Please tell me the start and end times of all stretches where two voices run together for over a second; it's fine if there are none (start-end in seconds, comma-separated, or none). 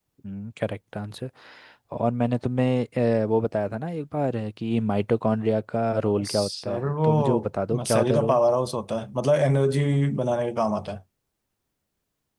6.3-8.4